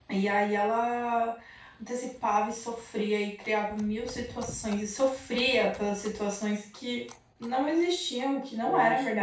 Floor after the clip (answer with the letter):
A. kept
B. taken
A